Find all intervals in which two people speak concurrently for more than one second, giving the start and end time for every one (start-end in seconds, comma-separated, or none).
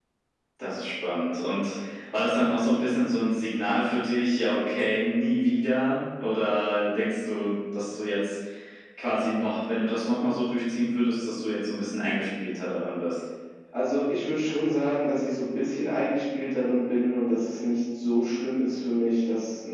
none